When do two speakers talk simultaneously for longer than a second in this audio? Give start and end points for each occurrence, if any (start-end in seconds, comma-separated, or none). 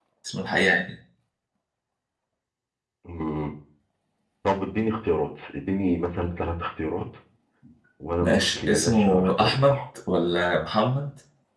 8.2-9.8